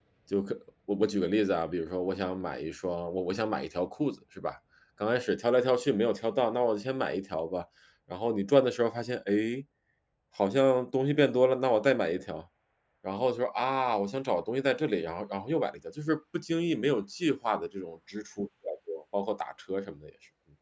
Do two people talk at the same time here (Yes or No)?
No